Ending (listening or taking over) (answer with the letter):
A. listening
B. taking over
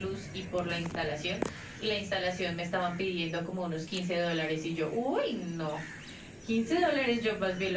A